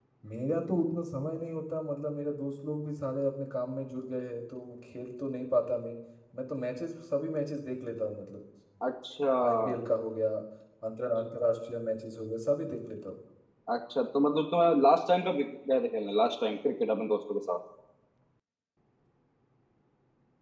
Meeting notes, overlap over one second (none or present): none